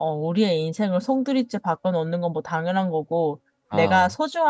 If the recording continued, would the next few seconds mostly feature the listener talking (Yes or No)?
No